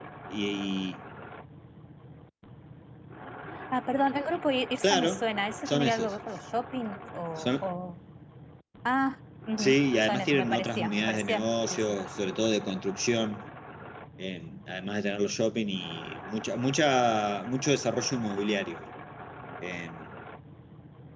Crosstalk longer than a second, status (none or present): present